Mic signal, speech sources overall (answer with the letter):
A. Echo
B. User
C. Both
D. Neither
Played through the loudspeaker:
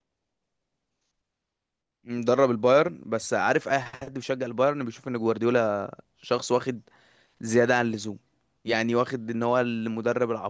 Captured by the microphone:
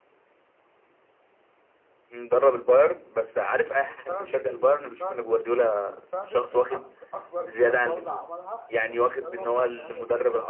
C